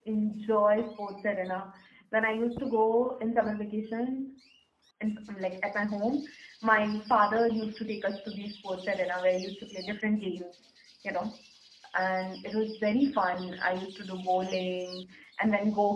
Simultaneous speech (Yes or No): No